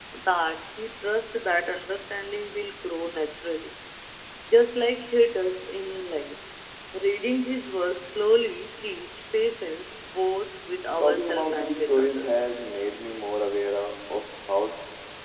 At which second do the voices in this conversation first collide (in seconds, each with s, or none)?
11.0 s